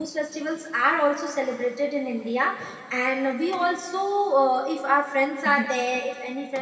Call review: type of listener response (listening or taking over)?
listening